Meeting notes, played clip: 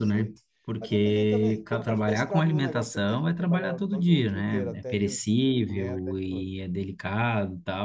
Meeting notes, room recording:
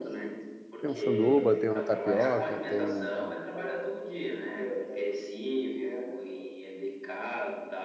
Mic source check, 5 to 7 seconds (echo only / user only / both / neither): echo only